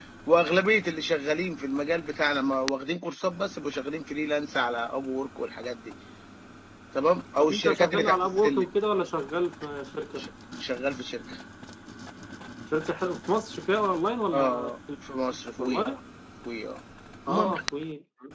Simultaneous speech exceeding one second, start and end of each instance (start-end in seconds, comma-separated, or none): 7.4-8.7